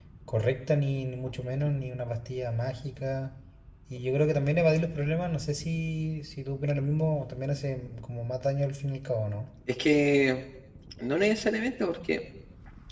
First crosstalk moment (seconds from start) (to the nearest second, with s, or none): none